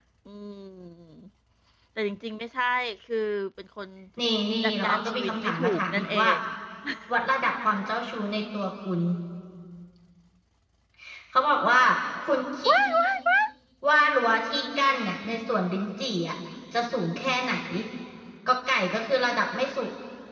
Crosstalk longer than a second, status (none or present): present